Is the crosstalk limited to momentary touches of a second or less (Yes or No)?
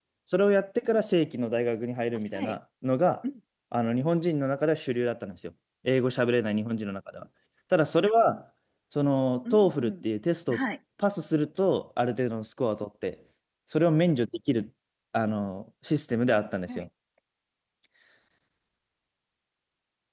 Yes